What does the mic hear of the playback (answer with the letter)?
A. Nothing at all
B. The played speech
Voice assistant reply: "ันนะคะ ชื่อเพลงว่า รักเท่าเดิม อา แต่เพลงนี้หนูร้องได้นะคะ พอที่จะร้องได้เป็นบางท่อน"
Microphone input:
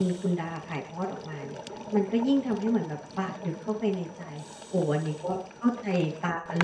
A